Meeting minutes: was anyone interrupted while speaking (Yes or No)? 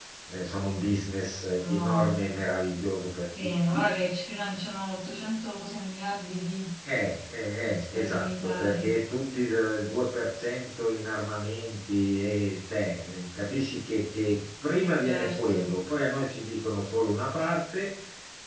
Yes